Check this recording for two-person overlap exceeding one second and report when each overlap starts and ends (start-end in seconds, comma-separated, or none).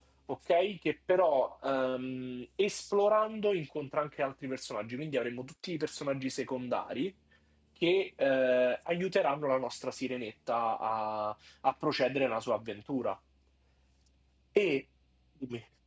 none